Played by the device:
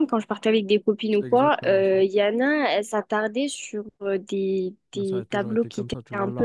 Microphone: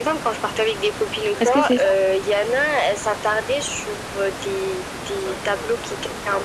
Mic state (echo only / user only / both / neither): both